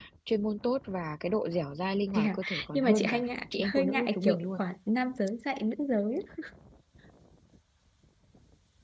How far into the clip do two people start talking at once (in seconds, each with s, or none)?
2.1 s